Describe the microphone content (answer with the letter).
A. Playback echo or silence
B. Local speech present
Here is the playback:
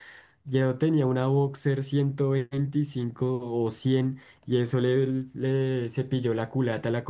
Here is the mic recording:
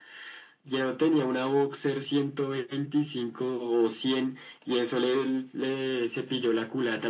A